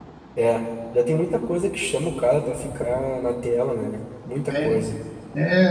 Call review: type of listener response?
taking over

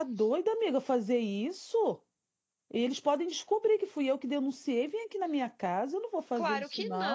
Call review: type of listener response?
taking over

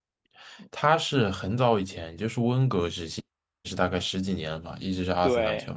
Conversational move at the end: taking over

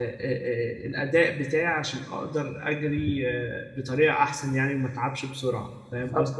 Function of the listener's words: taking over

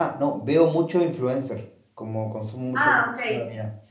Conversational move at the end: listening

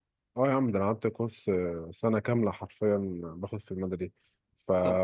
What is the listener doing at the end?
listening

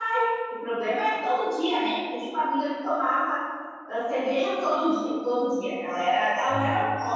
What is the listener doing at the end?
listening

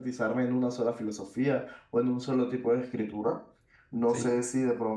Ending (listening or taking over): listening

